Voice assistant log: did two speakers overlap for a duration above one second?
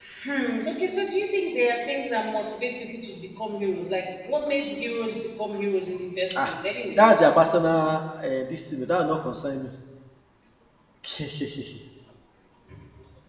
No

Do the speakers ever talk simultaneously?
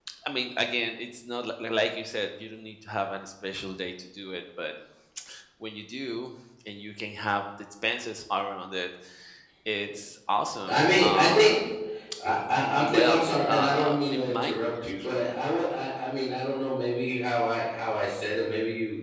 Yes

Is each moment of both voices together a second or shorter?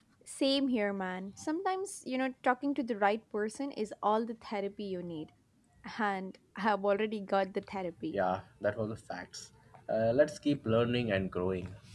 Yes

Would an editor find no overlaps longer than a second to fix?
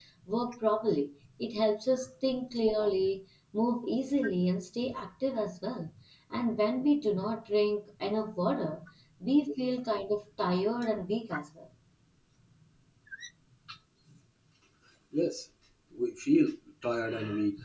Yes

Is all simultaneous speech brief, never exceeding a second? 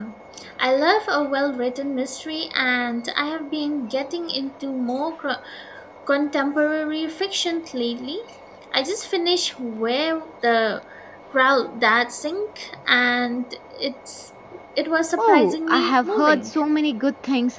No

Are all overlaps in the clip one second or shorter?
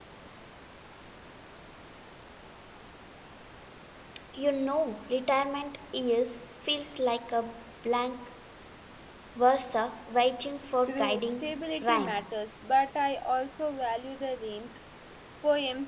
No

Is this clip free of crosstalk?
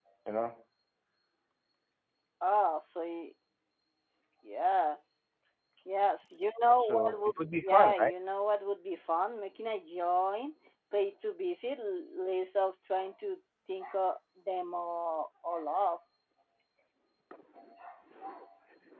No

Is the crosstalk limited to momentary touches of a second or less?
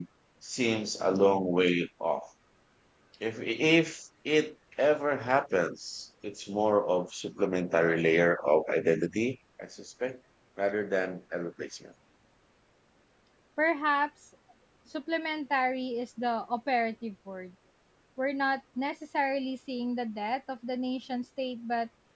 Yes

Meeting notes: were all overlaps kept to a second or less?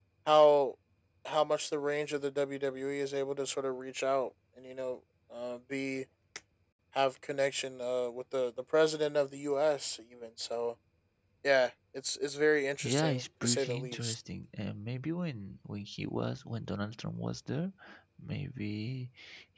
No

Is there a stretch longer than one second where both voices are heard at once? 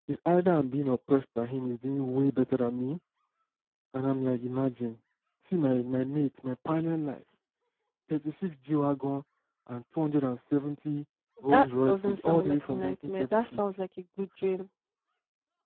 Yes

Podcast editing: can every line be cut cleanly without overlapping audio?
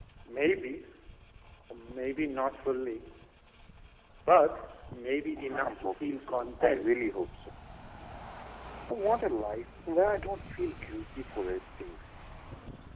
No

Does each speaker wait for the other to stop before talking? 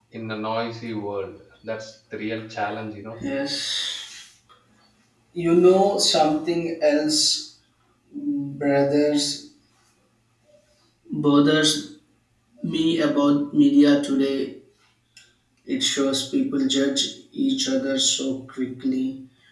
Yes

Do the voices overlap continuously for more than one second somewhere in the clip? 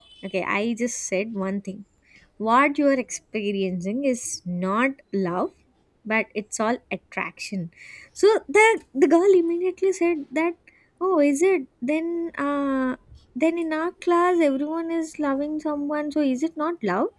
No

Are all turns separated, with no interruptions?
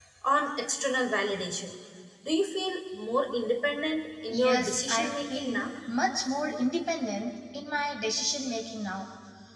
No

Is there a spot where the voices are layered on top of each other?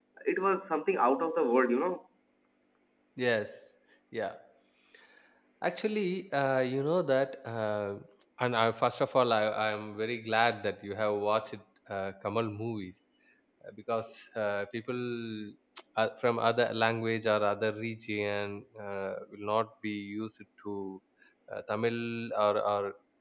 No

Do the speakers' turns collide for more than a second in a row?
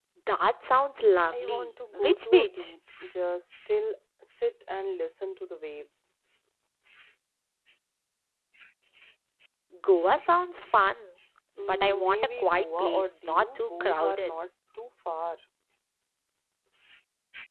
Yes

